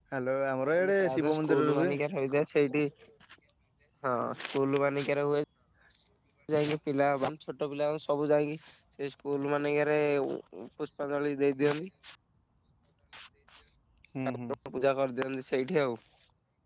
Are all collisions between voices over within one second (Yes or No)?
No